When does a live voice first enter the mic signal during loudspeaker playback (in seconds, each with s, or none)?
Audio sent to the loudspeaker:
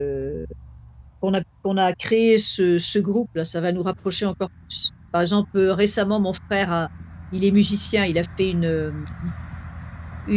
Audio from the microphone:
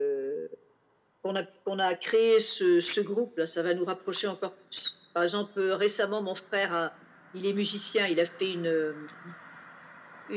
none